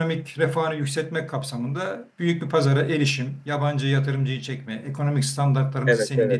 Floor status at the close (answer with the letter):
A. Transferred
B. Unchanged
B